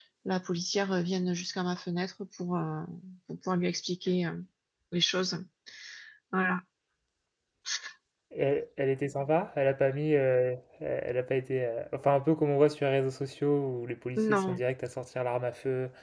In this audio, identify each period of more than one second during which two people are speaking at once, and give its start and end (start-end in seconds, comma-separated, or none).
none